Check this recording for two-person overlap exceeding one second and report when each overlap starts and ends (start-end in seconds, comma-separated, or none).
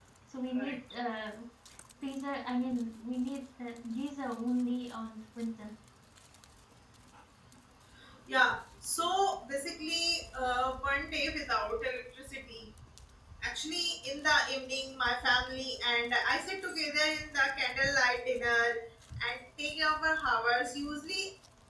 none